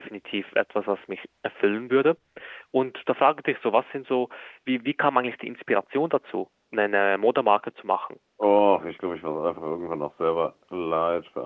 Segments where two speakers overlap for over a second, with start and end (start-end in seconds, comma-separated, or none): none